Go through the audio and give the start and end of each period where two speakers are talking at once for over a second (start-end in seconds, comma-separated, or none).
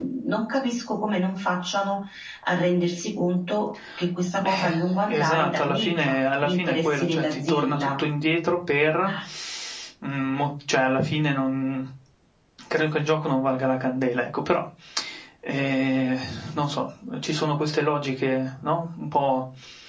5.1-8.0